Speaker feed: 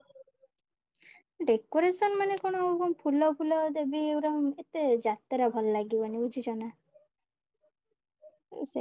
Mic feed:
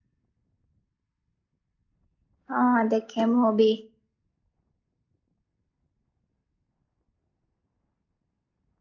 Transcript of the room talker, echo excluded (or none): ହଁ ଦେଖେ ମୁଁ ବି